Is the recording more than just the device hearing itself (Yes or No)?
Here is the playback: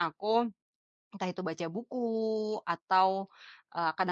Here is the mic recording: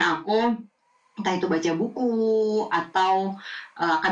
No